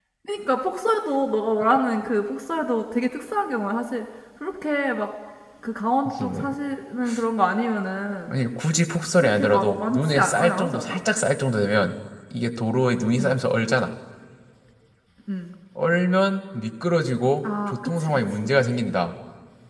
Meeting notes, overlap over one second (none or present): present